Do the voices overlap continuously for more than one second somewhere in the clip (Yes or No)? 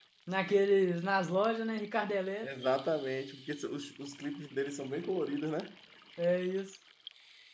No